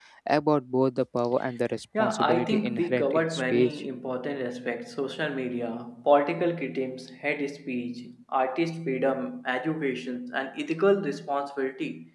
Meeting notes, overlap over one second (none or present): present